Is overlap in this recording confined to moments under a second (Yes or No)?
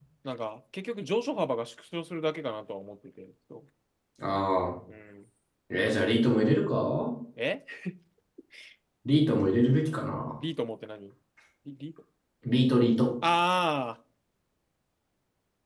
Yes